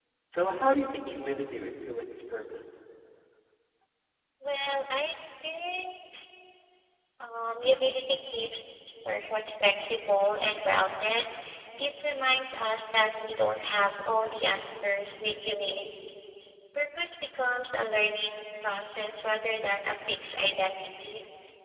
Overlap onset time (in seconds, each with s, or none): none